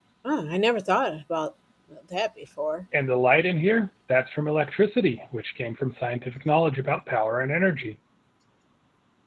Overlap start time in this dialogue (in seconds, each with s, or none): none